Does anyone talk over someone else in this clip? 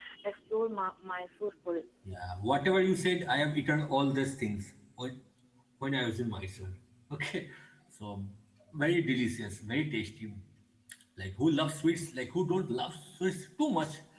No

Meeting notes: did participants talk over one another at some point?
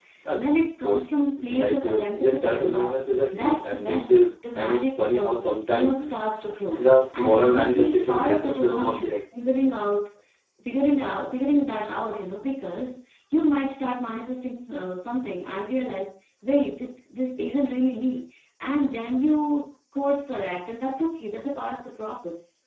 Yes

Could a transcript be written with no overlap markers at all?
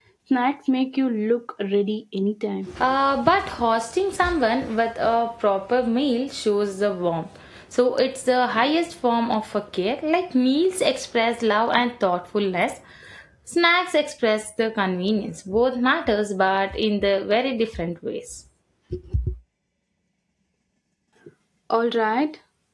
Yes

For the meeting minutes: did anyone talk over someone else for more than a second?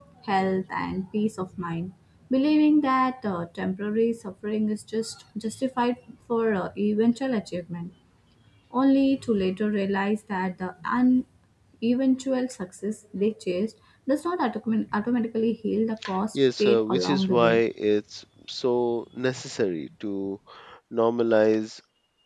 Yes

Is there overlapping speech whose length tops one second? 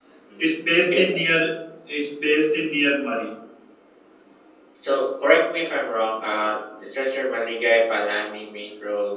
No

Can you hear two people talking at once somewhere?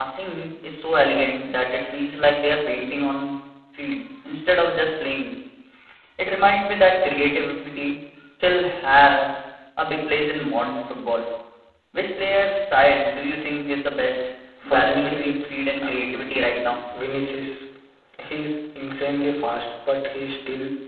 Yes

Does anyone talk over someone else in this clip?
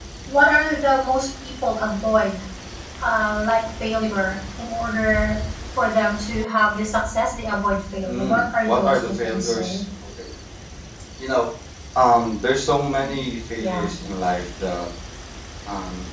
Yes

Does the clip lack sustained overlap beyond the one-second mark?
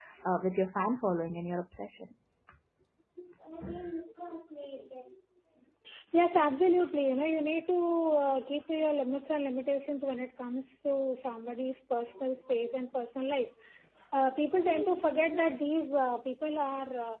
Yes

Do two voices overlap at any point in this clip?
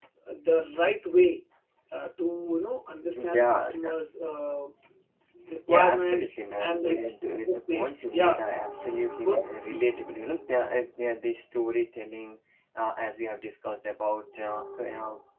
Yes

